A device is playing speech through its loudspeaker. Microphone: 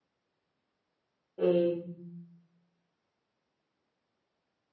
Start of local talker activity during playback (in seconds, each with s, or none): 1.4 s